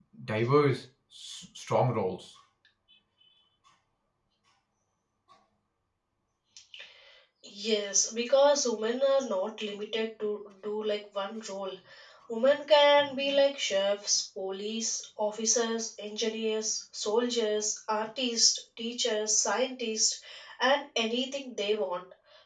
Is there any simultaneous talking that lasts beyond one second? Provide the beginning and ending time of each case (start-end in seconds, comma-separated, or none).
none